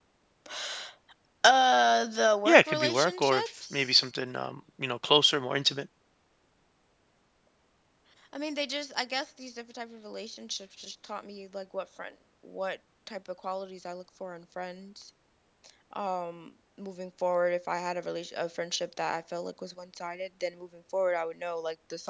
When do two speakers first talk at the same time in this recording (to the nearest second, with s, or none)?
2 s